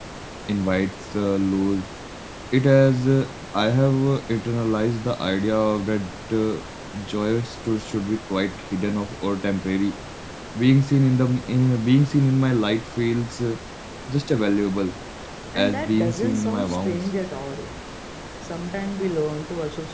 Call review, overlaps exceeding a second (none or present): present